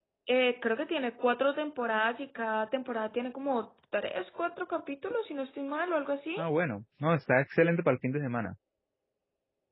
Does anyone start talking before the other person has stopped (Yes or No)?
No